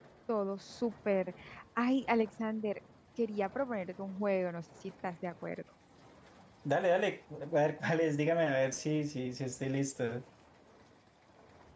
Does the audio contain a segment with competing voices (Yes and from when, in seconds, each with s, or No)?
No